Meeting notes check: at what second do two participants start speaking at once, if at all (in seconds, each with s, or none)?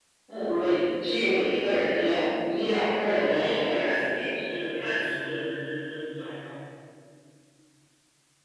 3.1 s